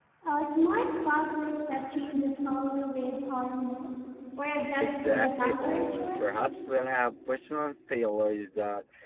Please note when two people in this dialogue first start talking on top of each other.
4.8 s

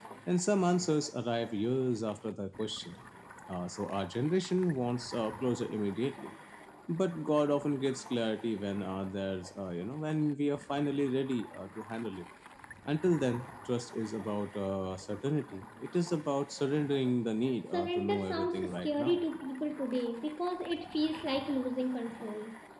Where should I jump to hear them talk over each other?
17.7 s

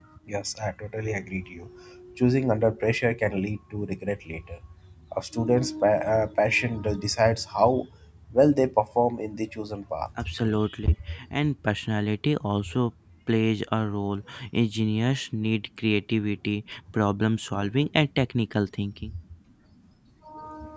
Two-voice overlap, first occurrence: none

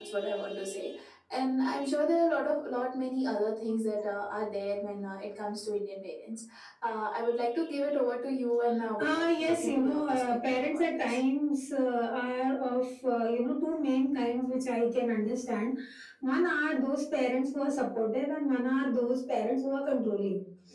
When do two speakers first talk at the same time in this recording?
9.0 s

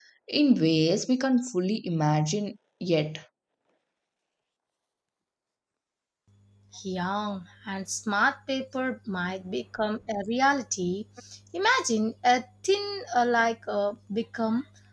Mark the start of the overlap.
none

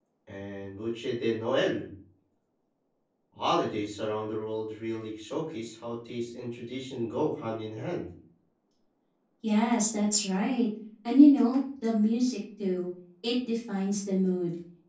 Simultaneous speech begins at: none

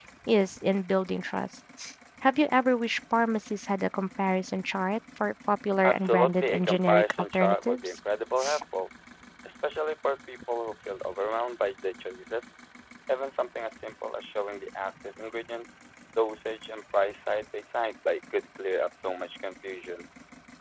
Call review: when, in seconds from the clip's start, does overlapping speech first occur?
5.8 s

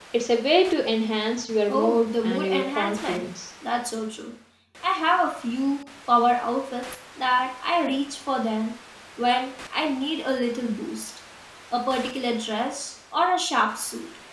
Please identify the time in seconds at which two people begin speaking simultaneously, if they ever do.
1.7 s

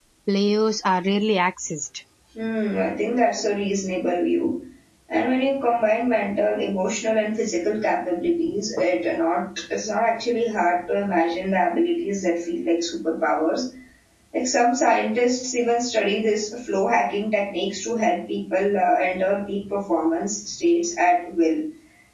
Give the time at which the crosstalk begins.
none

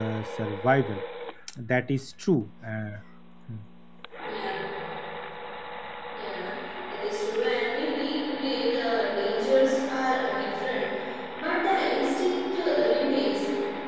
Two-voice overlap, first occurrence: none

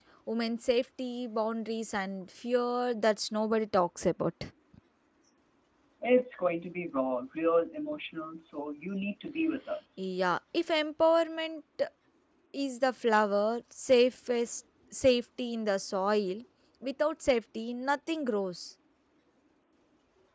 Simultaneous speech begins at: none

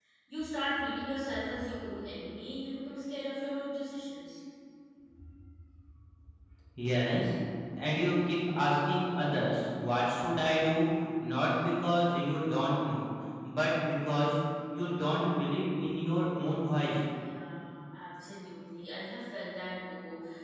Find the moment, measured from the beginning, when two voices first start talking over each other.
none

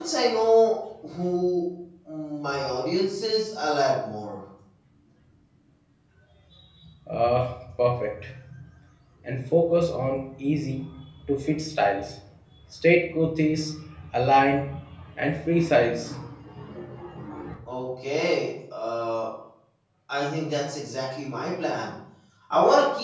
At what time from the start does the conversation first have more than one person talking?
none

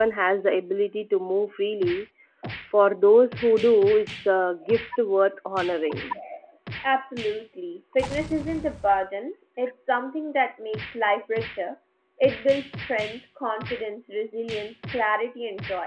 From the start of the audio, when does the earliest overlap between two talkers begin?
none

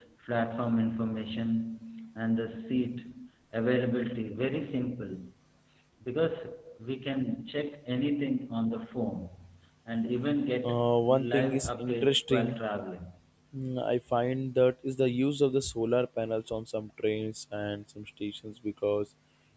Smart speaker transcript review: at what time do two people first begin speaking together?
10.6 s

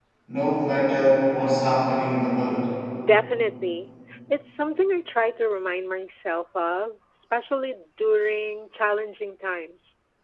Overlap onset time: none

